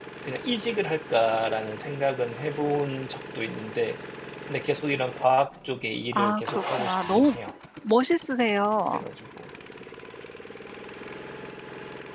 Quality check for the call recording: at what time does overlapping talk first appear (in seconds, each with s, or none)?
6.1 s